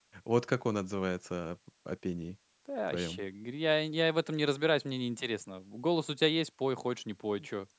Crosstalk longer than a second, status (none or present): none